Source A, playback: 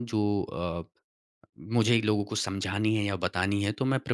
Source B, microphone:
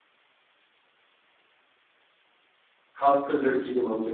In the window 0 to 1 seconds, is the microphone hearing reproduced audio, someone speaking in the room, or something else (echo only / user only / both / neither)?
neither